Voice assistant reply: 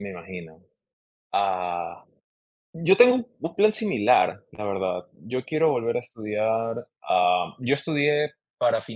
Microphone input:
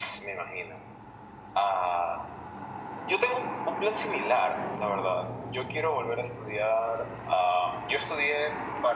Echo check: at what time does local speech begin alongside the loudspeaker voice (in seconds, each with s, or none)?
none